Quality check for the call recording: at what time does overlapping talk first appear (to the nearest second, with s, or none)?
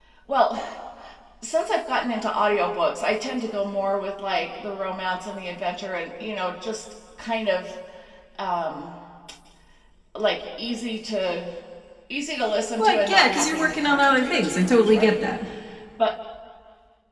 13 s